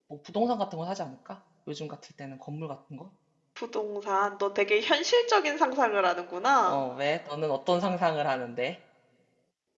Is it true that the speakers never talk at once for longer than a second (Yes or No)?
Yes